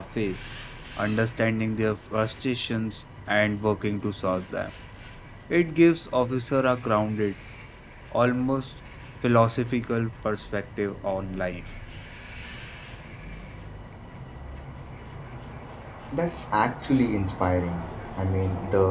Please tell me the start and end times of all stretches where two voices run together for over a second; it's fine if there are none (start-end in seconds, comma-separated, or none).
none